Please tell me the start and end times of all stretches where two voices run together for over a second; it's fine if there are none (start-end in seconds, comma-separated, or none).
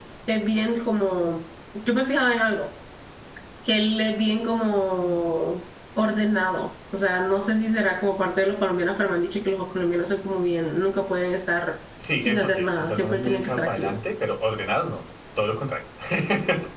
12.2-14.0